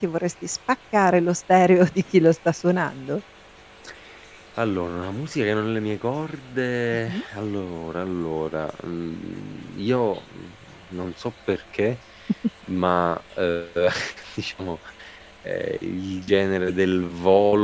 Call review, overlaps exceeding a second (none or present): none